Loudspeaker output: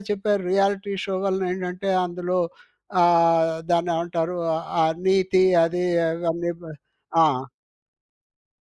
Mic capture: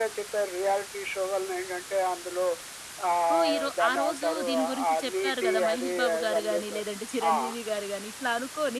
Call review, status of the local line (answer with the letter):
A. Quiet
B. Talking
B